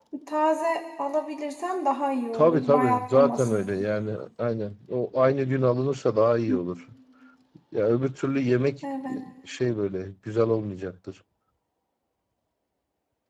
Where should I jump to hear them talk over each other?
2.3 s

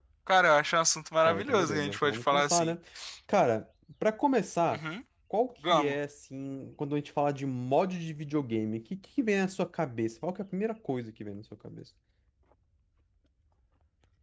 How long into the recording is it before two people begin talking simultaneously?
1.2 s

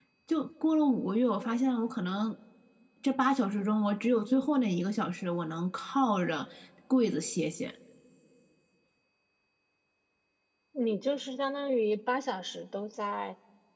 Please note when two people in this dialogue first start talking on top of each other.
none

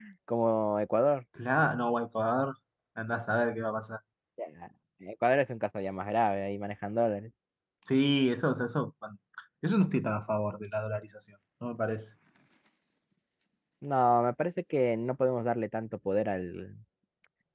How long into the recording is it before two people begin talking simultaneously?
none

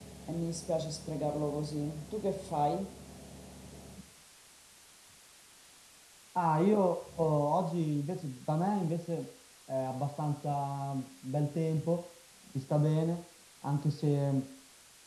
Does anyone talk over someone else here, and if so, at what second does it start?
none

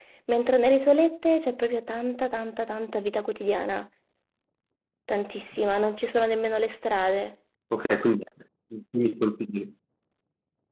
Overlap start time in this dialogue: none

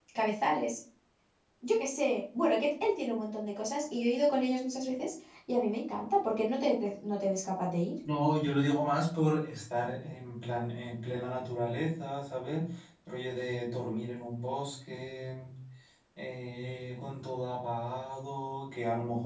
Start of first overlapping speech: none

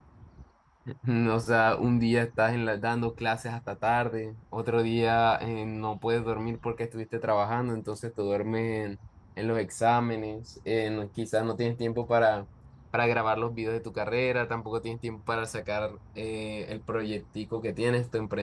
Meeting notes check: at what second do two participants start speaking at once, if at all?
none

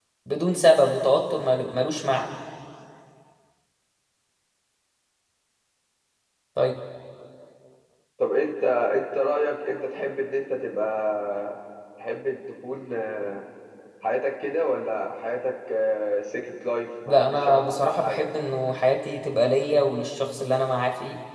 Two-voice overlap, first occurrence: 17.1 s

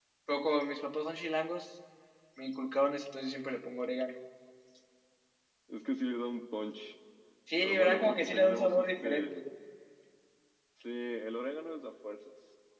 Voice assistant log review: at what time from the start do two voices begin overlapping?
7.6 s

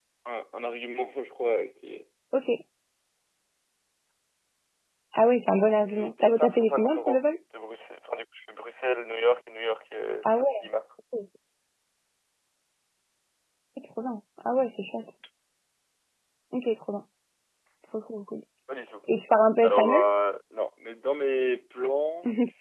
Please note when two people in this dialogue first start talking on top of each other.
5.8 s

